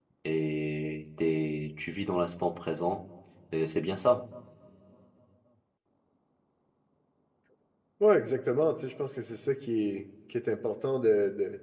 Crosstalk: none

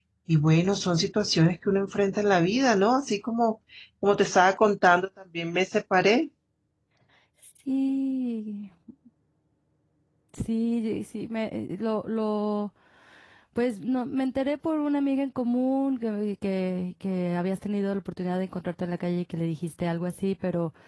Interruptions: none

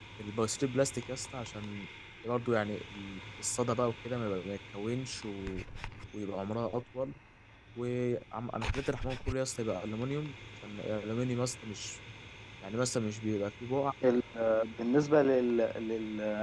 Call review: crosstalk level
none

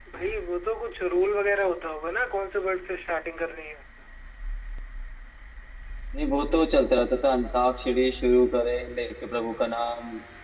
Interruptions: none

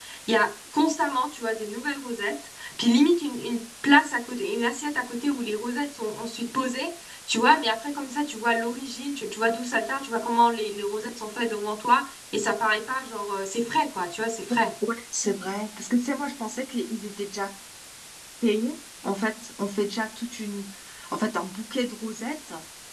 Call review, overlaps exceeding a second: none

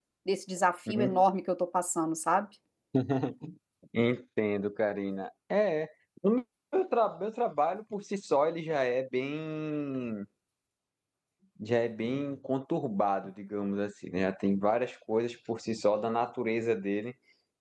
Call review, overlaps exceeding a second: none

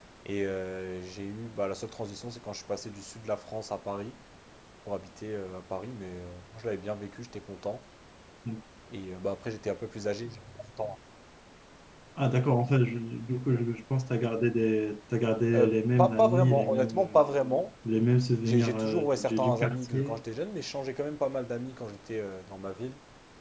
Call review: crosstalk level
present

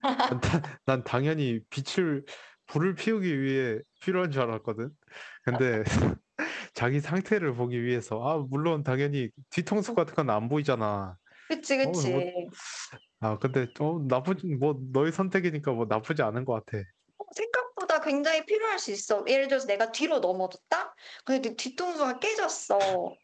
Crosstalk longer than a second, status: none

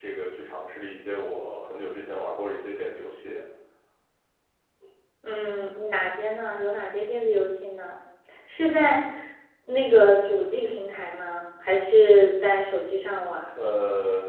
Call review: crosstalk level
none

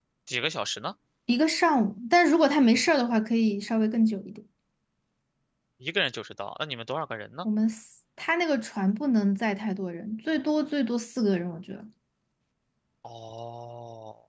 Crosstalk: none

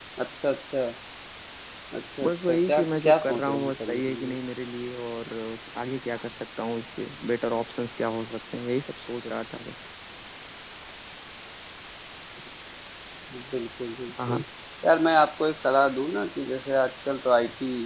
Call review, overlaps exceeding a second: present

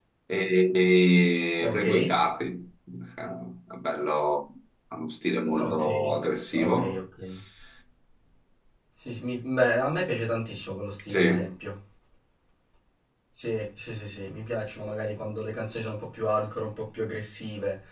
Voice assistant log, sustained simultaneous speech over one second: none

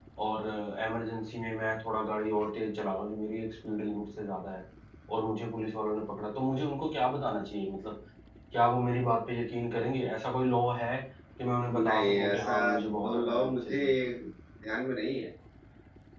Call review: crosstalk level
present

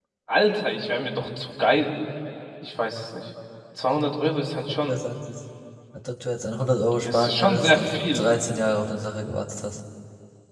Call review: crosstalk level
present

